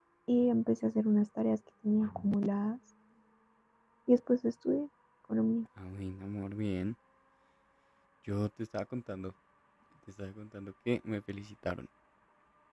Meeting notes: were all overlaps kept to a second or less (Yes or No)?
Yes